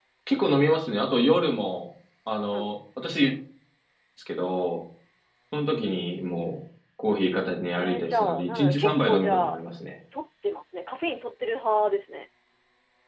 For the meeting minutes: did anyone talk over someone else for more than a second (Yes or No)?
Yes